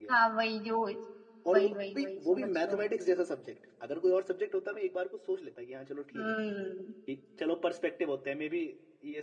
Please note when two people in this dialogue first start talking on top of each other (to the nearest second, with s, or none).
2 s